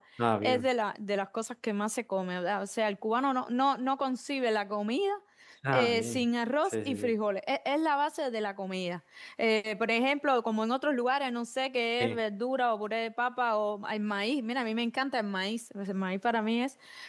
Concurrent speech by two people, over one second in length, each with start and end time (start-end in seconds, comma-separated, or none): none